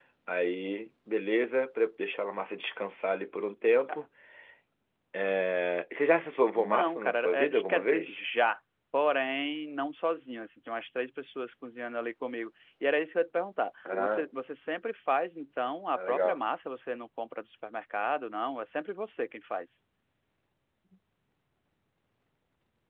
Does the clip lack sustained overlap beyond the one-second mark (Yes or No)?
No